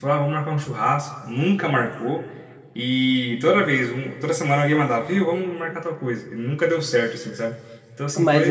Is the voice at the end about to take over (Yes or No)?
Yes